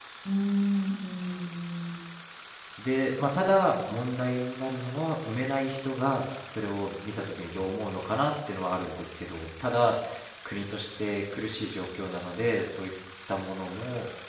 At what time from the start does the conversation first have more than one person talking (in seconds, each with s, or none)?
none